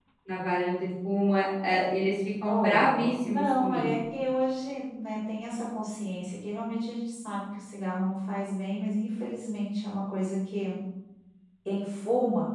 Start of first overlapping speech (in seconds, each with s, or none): 2.4 s